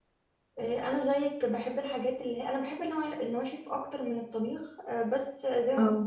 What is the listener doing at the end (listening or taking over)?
listening